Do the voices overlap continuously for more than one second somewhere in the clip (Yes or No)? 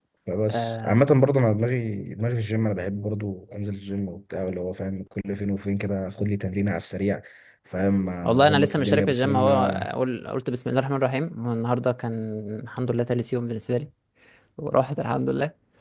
Yes